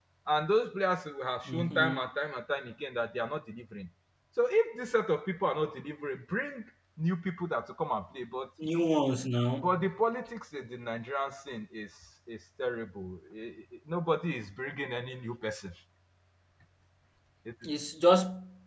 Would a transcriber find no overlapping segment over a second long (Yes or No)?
Yes